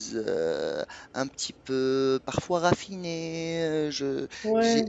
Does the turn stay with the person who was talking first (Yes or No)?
No